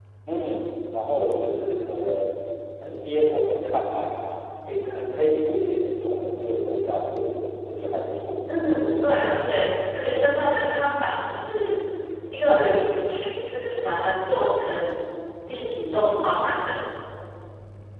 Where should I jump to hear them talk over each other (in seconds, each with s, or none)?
none